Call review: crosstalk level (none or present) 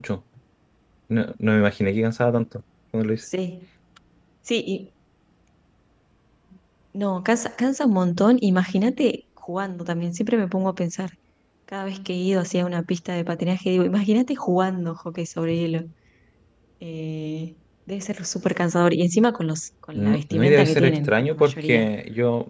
present